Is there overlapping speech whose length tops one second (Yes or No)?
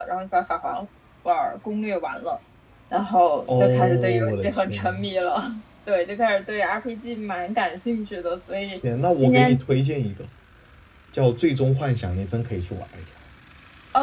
Yes